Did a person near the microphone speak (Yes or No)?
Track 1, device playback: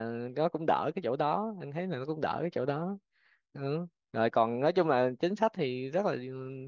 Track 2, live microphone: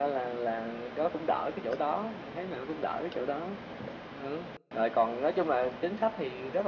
No